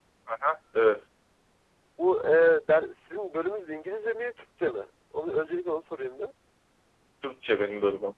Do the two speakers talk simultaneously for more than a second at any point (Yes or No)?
No